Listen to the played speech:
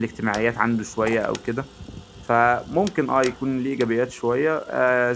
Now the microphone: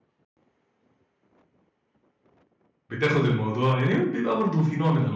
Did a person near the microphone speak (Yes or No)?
Yes